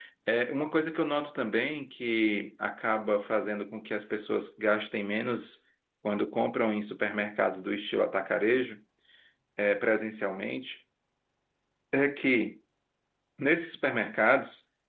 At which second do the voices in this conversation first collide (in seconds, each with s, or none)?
none